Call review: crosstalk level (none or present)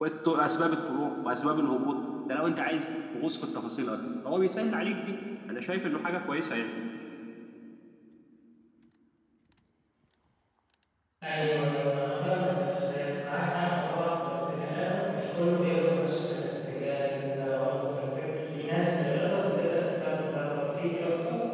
none